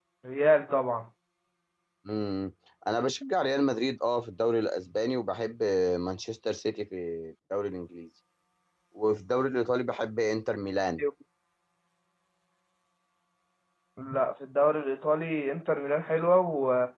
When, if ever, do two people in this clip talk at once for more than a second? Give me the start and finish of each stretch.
none

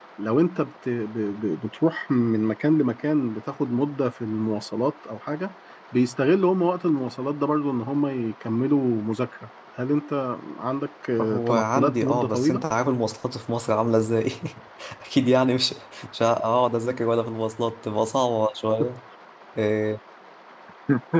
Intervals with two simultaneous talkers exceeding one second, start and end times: 11.2-12.7

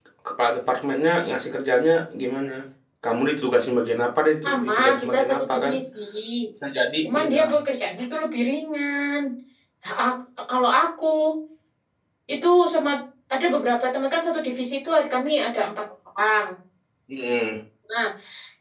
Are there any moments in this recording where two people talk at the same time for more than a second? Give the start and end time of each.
4.4-5.7

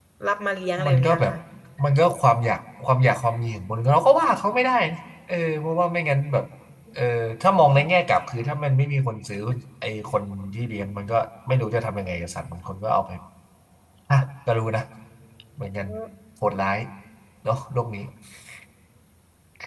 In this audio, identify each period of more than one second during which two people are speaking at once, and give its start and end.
none

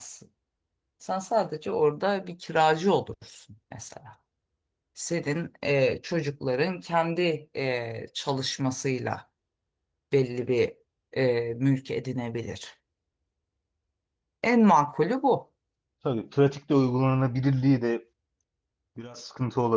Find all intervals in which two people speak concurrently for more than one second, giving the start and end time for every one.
none

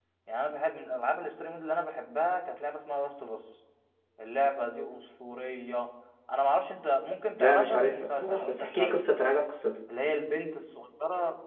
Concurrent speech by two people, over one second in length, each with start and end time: 7.3-9.0

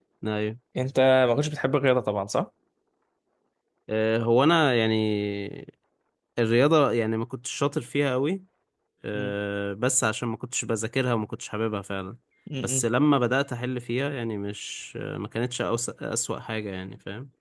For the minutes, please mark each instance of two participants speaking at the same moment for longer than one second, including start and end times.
none

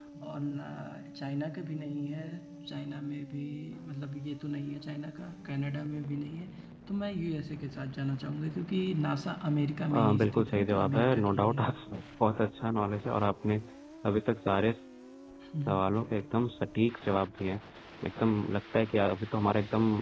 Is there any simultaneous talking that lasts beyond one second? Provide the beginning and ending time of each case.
9.9-11.7

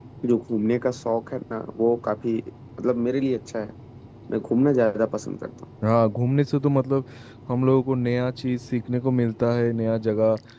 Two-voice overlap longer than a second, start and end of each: none

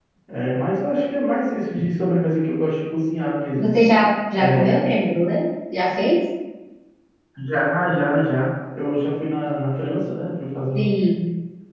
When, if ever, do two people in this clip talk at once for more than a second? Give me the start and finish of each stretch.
none

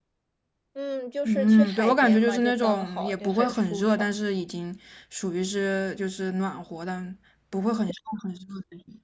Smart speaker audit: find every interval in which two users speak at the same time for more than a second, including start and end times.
1.2-4.1

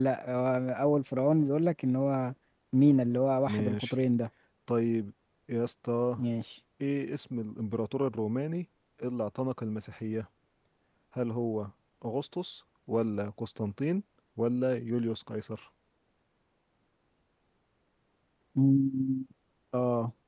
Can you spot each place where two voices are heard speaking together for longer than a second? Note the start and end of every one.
none

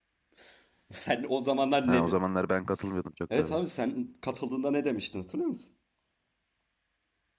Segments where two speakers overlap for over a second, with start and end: none

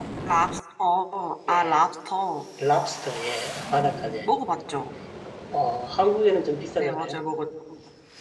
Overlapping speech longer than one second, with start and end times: none

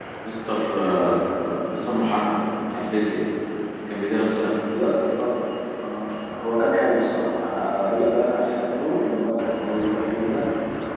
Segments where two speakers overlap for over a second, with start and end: none

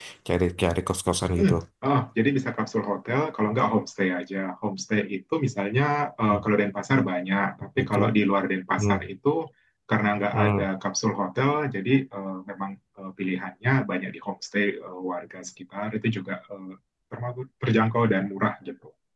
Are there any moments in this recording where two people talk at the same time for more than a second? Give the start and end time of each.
none

